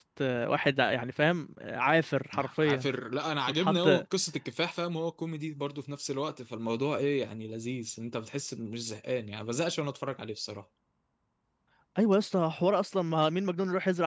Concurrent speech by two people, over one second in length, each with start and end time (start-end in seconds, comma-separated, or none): none